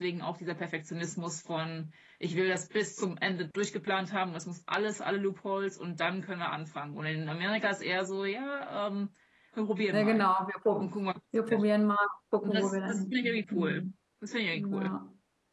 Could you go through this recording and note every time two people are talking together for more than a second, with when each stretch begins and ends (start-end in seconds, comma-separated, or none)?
12.4-13.9